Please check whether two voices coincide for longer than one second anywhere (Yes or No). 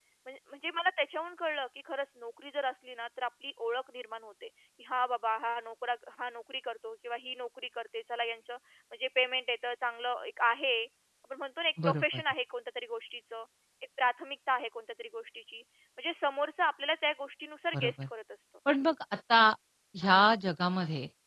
No